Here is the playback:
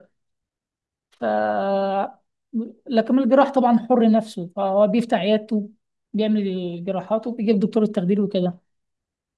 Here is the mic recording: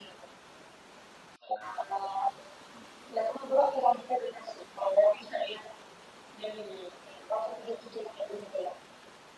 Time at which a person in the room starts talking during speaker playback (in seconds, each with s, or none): none